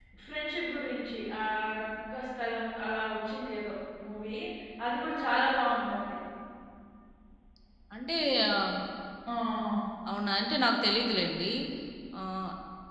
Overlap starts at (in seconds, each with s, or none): none